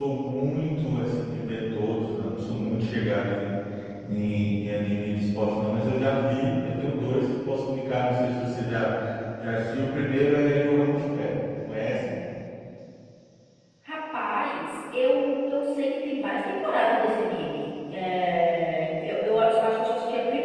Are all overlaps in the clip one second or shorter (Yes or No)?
Yes